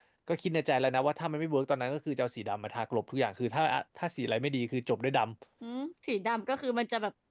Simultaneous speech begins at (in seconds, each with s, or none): none